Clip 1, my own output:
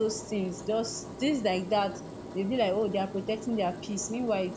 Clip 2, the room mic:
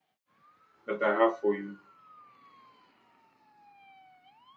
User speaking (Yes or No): Yes